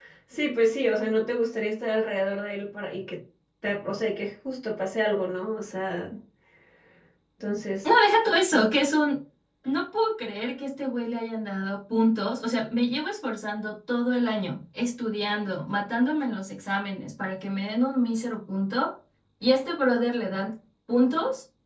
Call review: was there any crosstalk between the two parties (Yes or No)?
No